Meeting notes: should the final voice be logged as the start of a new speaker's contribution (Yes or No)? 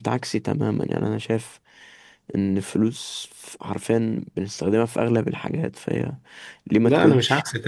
Yes